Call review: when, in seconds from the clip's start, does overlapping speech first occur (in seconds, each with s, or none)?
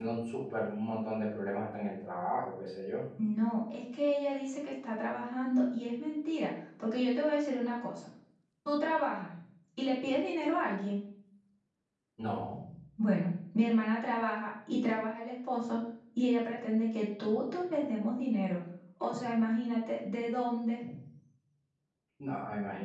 none